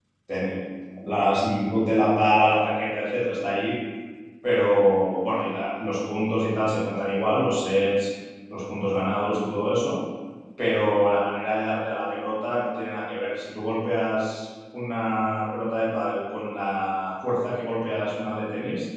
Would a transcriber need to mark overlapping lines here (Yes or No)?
No